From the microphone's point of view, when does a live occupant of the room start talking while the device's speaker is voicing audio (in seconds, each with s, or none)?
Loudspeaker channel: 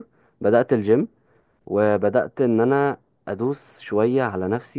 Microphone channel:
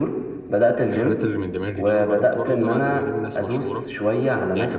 0.9 s